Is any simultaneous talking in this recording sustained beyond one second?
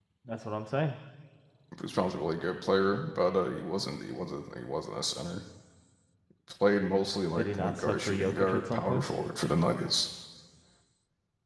Yes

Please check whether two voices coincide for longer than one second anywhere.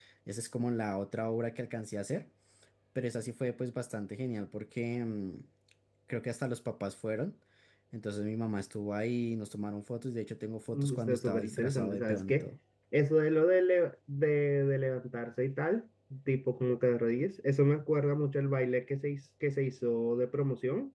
Yes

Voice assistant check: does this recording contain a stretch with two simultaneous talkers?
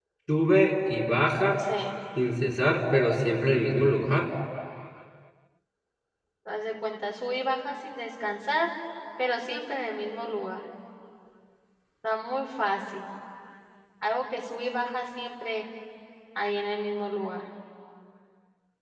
No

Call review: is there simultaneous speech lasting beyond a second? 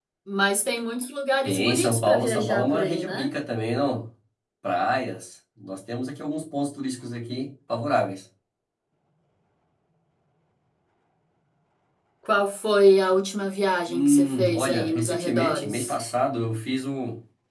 Yes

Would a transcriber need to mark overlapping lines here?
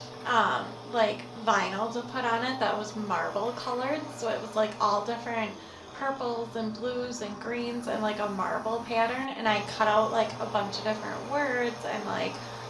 No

